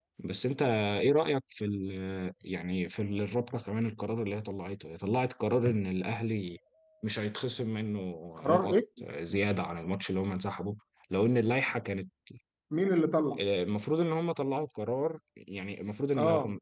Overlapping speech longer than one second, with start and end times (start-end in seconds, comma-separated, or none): none